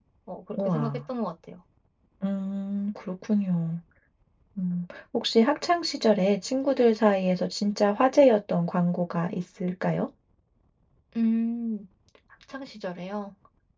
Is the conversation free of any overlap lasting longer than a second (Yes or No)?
Yes